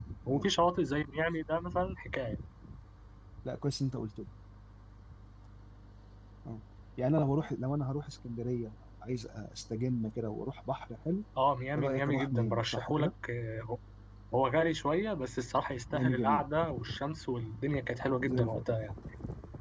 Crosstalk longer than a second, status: present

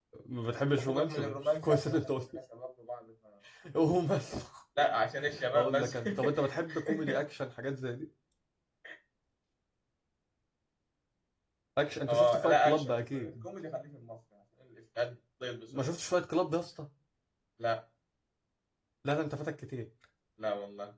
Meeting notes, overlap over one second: present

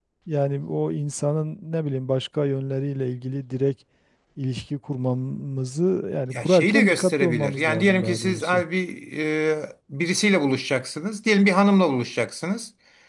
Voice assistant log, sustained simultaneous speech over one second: present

